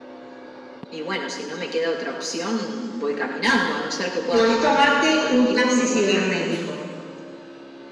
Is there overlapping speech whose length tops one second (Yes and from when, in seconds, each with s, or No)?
Yes, from 4.3 s